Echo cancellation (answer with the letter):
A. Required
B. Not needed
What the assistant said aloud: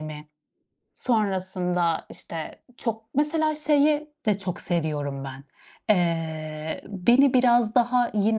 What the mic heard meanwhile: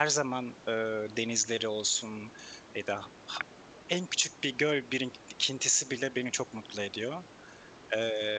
B